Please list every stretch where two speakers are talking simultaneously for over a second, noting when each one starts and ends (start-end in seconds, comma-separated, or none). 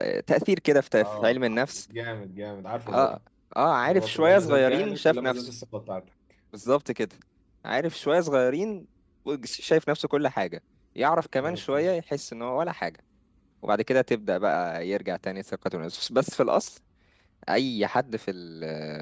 3.8-5.5